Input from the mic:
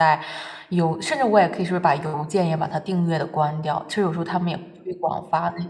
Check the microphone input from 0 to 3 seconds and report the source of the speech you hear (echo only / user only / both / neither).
user only